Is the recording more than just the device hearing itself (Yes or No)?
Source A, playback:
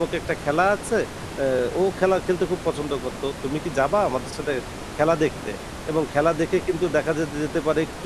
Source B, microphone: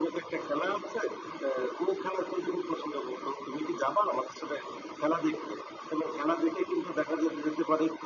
No